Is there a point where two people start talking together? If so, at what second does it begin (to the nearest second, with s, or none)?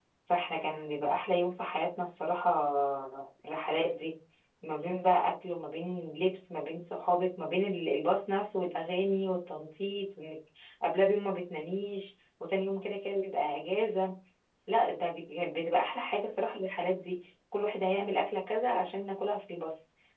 none